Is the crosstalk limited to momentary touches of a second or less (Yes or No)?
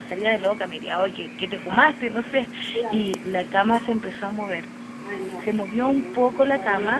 No